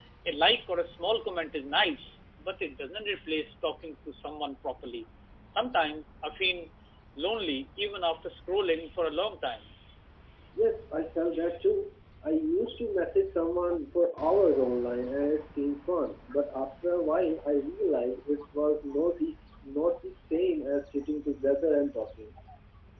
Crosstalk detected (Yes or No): No